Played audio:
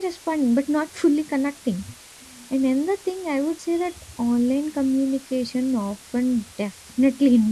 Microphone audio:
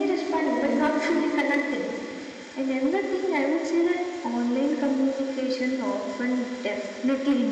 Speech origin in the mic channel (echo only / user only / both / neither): echo only